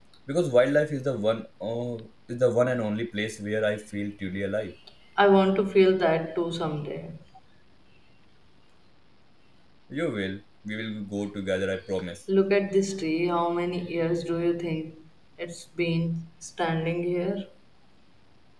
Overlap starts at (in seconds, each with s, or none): none